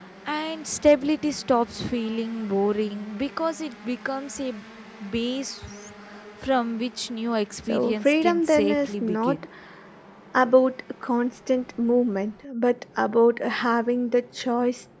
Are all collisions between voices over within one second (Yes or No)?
No